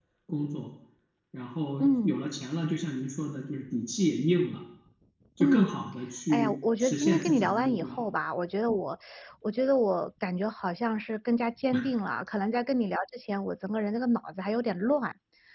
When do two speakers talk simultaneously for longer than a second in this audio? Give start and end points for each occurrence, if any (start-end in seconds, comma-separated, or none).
6.3-8.0